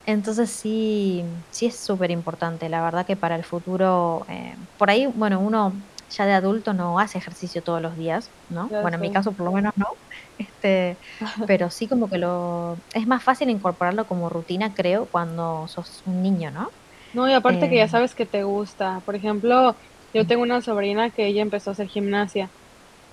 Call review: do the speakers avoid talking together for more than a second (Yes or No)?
Yes